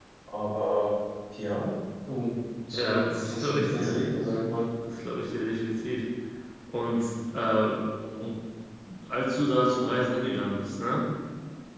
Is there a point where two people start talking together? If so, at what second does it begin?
2.7 s

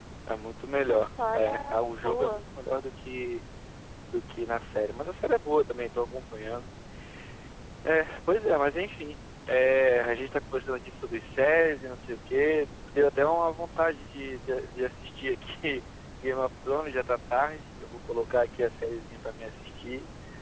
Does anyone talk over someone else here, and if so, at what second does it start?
0.8 s

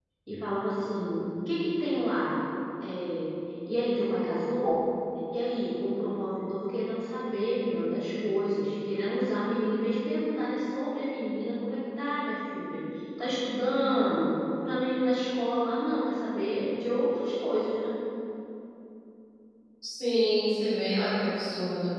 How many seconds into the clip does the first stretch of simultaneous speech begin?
none

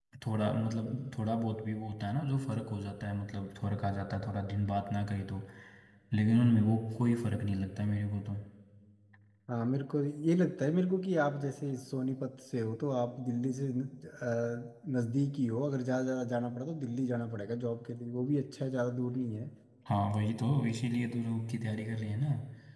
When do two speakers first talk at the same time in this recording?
none

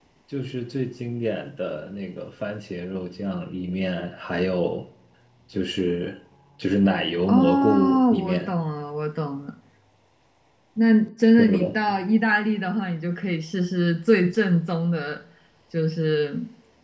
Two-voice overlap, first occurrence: 7.3 s

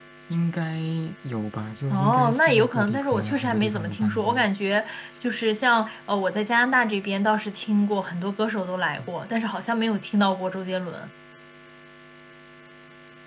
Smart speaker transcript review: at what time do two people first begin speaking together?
1.9 s

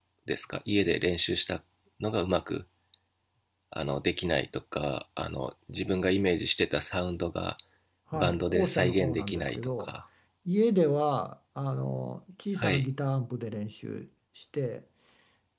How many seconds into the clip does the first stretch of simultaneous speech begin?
8.1 s

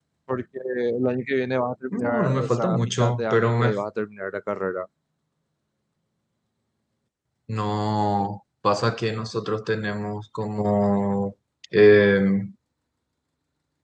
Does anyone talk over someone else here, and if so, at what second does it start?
1.9 s

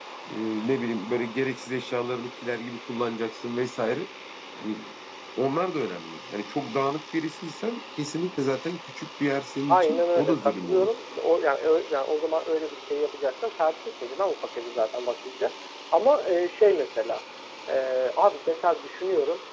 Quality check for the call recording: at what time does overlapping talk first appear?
9.7 s

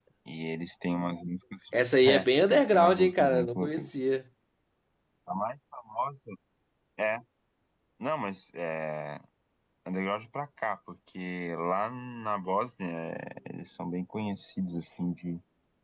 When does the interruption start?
2.1 s

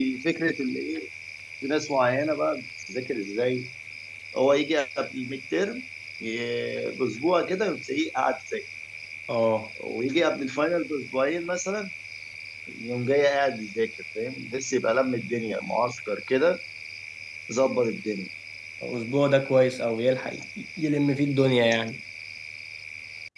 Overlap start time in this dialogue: none

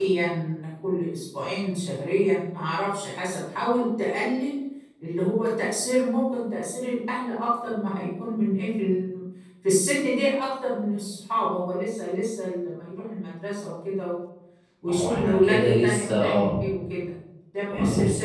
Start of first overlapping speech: 14.9 s

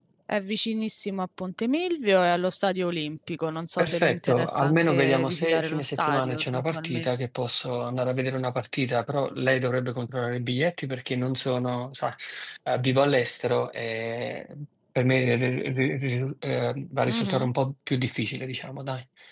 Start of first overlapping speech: 3.8 s

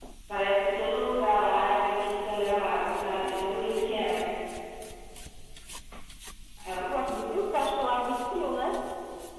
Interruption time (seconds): none

